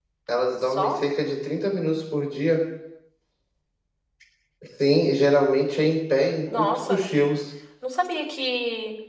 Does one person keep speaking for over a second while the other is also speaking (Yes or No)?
No